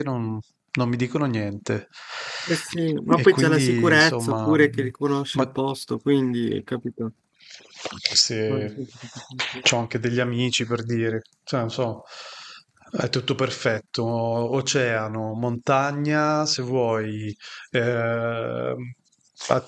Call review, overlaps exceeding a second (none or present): present